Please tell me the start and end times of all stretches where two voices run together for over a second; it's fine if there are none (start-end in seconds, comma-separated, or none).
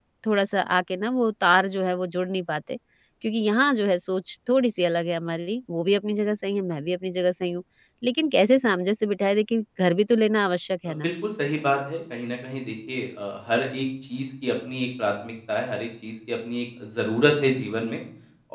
none